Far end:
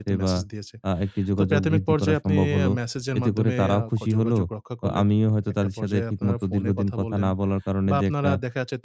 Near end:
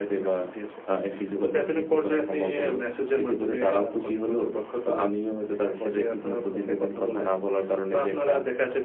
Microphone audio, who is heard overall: echo only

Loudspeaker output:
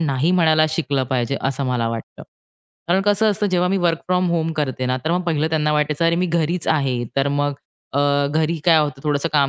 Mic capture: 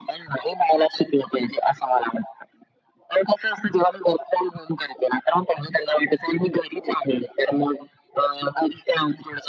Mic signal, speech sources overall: echo only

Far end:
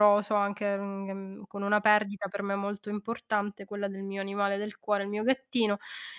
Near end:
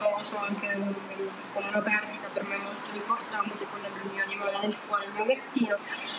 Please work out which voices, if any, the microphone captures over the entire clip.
echo only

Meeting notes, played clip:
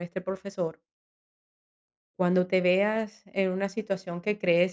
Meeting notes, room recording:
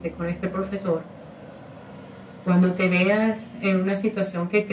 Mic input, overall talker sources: echo only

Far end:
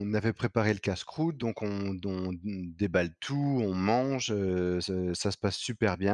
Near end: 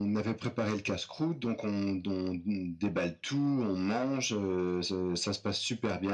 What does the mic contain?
echo only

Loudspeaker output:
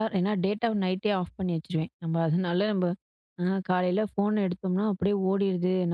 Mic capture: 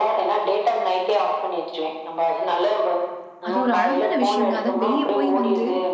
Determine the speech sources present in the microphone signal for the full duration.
both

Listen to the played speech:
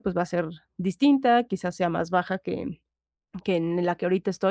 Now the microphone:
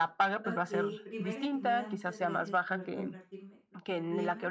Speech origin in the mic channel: both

